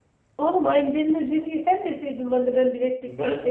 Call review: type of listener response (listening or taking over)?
taking over